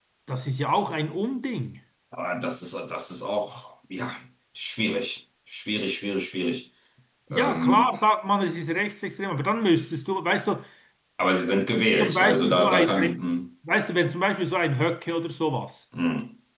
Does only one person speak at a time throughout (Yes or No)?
No